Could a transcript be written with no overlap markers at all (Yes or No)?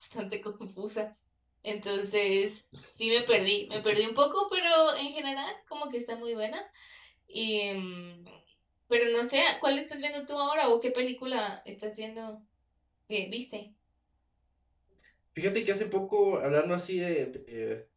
Yes